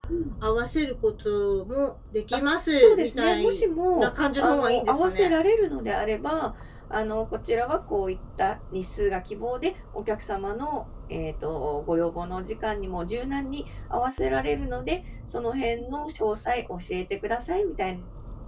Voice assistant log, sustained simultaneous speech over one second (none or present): present